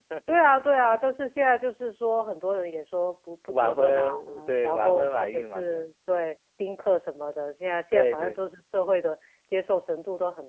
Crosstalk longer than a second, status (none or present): present